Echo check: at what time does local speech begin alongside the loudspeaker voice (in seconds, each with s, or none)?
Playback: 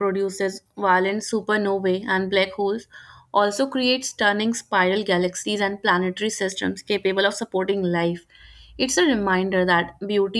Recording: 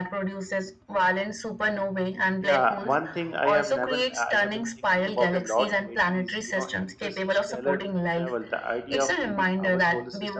2.4 s